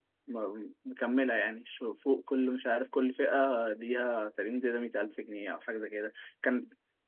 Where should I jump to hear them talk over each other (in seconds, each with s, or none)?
none